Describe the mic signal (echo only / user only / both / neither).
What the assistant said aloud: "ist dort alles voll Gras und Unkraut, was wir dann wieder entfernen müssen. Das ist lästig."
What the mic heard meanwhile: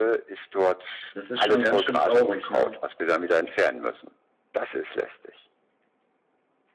both